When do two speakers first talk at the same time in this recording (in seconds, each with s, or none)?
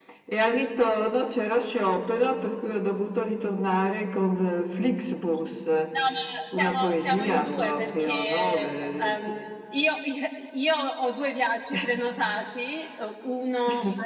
6.5 s